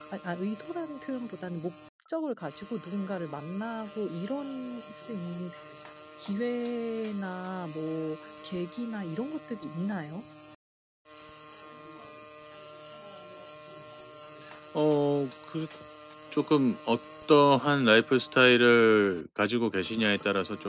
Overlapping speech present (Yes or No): No